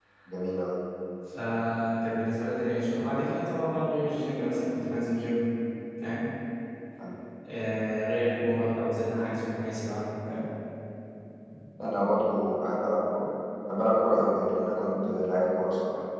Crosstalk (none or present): none